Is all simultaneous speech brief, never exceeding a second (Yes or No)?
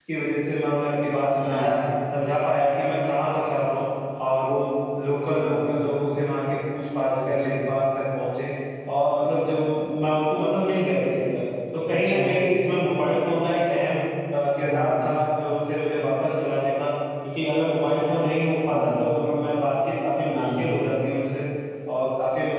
Yes